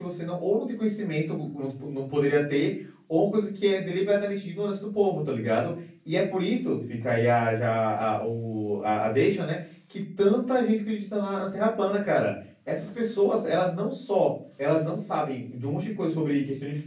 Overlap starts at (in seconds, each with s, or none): none